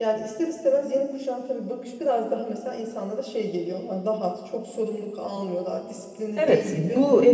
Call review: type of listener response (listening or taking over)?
taking over